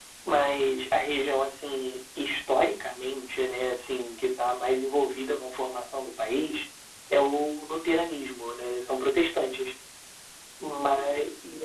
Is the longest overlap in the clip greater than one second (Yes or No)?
No